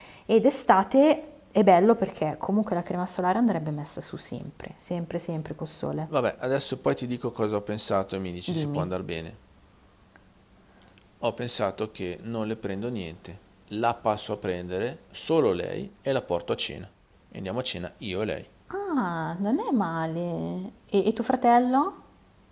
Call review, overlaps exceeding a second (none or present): none